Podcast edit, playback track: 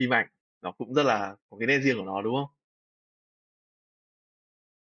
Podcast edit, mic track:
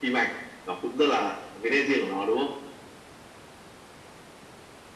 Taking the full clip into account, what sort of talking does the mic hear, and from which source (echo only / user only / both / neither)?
echo only